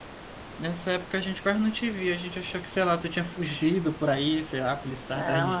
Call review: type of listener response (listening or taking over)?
taking over